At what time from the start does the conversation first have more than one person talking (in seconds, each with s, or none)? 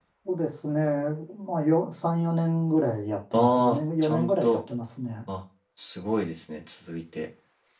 3.3 s